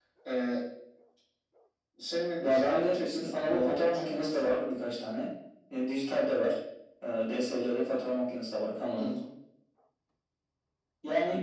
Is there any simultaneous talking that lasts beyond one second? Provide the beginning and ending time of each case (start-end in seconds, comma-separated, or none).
2.4-4.6